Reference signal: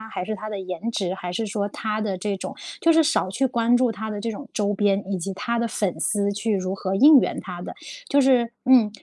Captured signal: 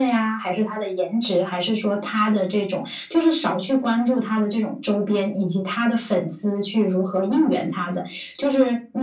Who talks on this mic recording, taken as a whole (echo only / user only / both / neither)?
echo only